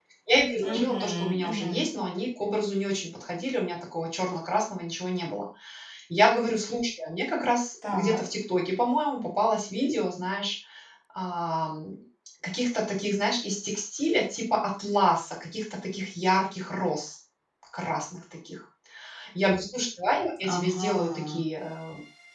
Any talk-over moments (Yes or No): Yes